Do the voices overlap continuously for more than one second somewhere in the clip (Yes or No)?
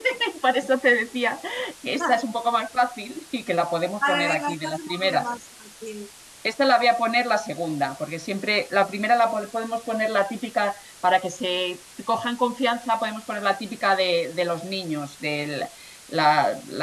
Yes